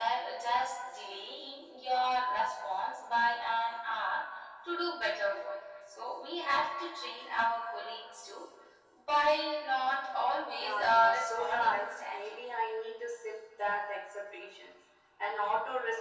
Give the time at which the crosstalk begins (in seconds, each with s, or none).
10.6 s